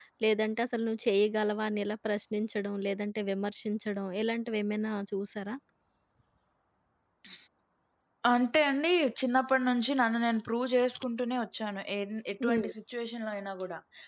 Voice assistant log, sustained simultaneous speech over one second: none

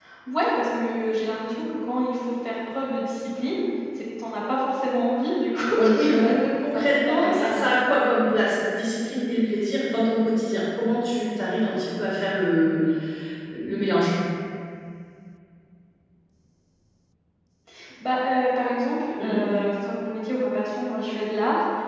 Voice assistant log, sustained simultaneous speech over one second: present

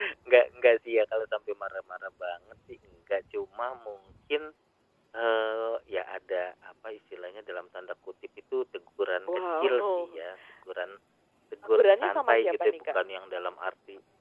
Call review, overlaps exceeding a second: present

